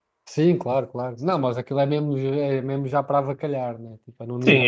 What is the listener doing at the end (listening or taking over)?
taking over